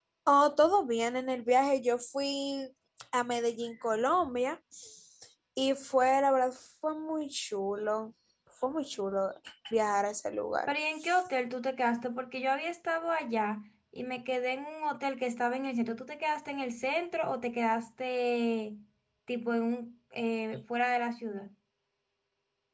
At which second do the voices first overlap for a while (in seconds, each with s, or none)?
none